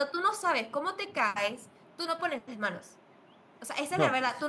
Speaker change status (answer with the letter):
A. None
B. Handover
A